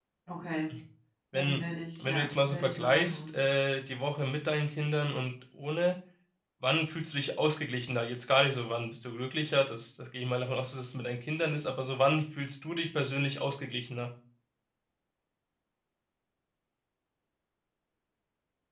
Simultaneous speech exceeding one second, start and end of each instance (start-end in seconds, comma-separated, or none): 2.0-3.3